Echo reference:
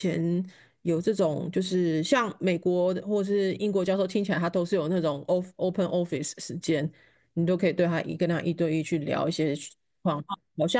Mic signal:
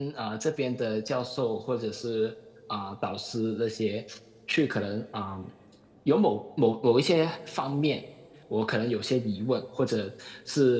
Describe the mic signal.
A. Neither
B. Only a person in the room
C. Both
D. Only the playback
B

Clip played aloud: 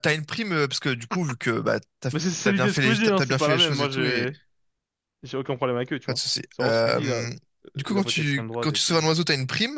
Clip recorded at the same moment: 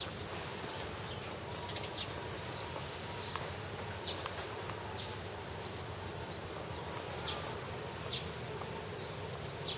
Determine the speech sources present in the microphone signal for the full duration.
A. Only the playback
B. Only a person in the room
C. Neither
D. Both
C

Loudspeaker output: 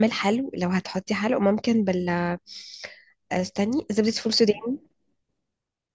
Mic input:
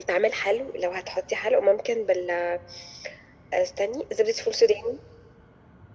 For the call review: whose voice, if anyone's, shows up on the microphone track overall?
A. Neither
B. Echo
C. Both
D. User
B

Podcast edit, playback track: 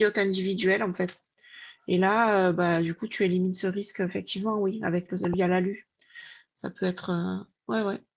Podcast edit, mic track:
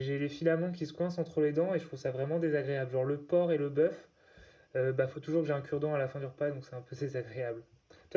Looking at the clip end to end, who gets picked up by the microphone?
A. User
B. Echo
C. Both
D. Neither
A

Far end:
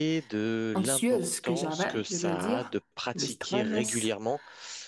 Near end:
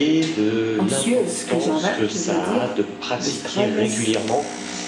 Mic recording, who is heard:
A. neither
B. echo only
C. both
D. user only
B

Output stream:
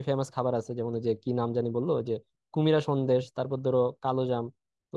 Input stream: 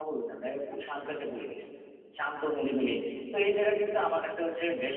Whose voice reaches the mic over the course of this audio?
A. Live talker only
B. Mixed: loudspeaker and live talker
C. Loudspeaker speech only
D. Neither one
A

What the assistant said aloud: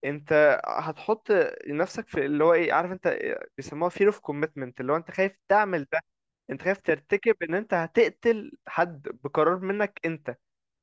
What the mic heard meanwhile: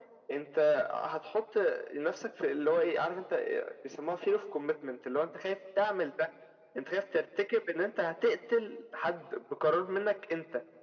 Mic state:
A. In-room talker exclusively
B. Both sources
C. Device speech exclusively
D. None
C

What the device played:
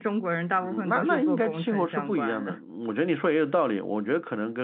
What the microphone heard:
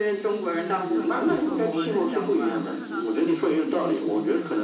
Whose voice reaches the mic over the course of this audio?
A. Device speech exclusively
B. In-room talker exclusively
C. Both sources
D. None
C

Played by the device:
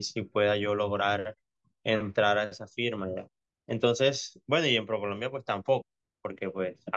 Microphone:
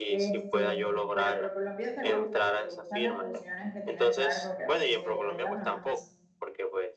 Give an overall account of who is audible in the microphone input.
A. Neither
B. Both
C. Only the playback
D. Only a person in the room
B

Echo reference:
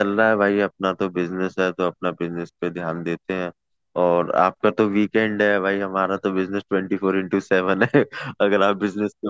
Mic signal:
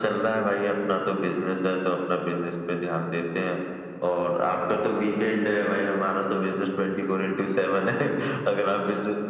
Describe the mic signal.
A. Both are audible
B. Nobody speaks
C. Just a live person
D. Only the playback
D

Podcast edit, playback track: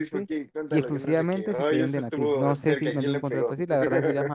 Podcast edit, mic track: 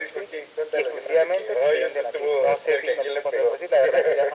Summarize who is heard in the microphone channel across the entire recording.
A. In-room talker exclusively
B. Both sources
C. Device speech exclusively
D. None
C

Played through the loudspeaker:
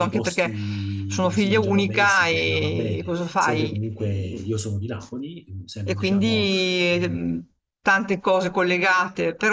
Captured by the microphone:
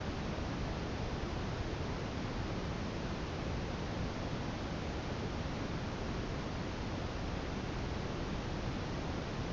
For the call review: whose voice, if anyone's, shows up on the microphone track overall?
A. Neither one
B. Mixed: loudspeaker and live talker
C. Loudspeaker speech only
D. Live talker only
A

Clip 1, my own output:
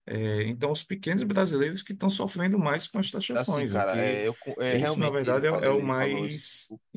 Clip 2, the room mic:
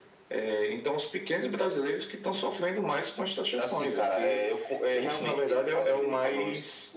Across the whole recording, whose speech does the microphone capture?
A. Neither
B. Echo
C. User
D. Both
B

